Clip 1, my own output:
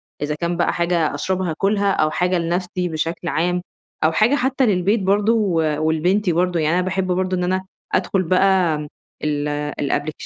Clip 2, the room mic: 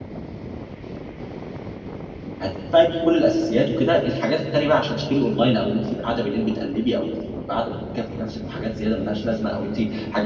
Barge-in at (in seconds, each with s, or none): 2.4 s